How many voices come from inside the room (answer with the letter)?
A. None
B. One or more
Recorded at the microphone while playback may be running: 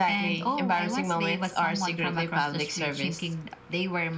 A